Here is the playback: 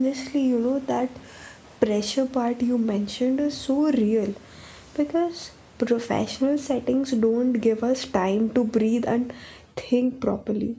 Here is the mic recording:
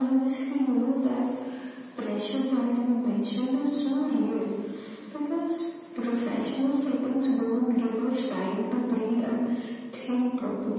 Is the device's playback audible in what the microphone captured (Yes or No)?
Yes